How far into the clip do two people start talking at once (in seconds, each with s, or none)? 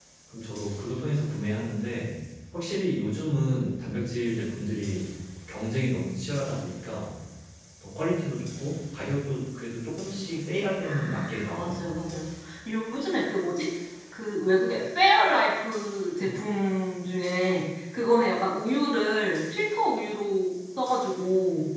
10.8 s